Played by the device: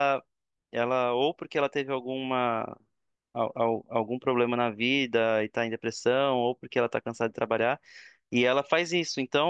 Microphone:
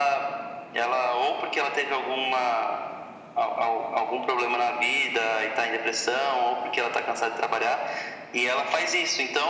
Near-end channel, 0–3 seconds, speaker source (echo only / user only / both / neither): echo only